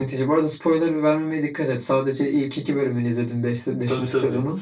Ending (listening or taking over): taking over